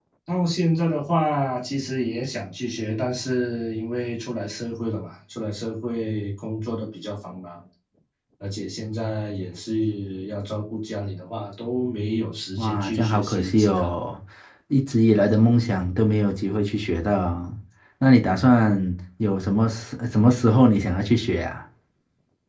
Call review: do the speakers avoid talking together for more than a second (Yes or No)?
No